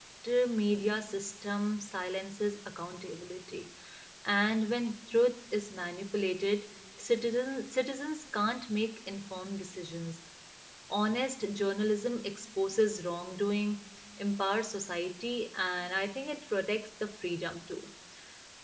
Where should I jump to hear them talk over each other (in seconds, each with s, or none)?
none